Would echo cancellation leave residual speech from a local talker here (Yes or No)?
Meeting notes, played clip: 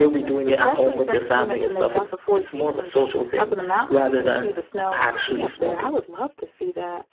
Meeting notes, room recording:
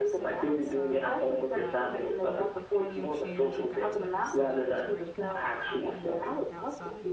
Yes